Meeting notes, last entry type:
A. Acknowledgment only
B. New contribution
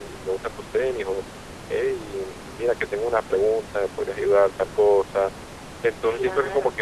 A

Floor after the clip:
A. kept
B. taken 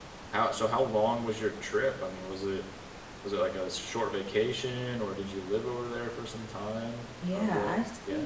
B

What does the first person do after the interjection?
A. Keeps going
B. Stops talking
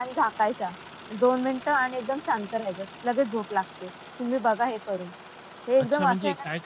B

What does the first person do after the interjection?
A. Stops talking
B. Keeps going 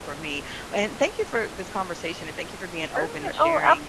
A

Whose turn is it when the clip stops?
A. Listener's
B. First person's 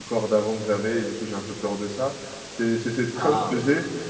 B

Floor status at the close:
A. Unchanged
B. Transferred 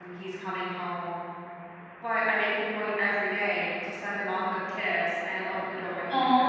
B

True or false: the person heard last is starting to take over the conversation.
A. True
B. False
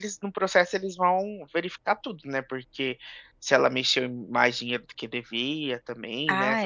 A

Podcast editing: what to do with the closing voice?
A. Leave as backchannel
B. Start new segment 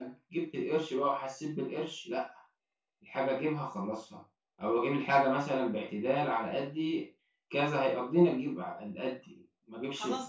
B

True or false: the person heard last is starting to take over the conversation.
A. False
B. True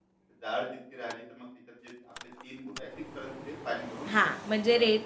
B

